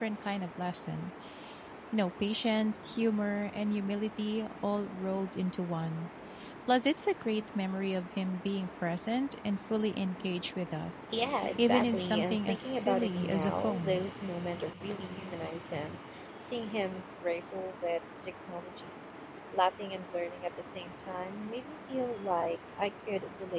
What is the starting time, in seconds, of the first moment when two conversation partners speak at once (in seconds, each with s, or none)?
11.6 s